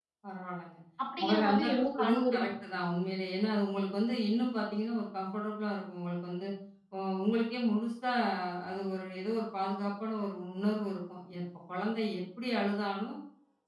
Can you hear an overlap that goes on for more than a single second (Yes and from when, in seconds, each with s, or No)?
Yes, from 1.2 s